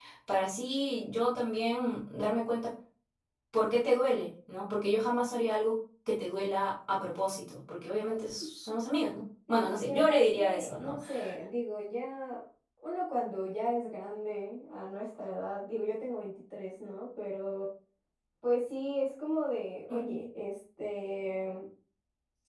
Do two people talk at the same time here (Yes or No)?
Yes